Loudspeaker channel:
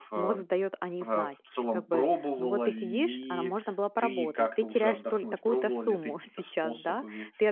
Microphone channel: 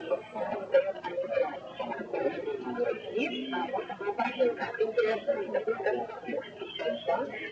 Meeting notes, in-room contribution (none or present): none